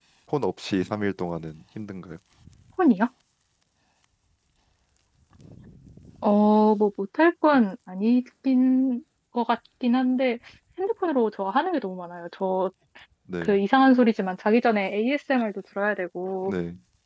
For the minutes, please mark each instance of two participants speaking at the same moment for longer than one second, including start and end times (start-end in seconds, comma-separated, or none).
none